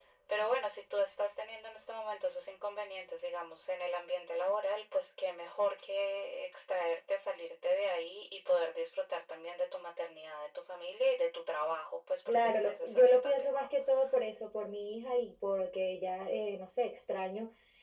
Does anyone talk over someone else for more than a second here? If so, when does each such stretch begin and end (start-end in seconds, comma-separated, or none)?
12.3-13.7